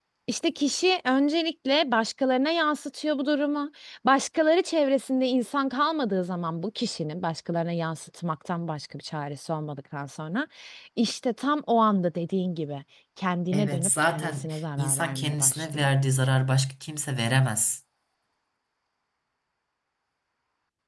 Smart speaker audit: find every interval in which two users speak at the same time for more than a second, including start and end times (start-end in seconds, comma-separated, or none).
13.5-15.9